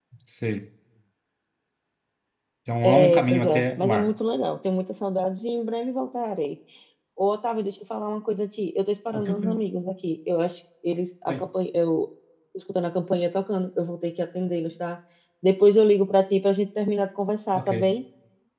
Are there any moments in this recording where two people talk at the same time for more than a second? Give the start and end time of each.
2.8-4.1

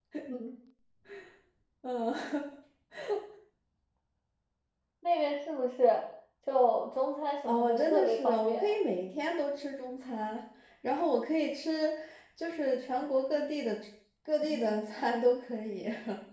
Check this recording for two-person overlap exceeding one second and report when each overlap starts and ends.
7.5-8.8

